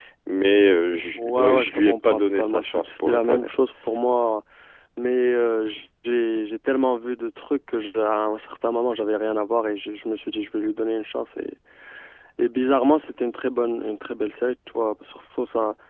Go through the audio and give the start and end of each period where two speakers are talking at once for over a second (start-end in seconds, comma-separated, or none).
1.2-3.5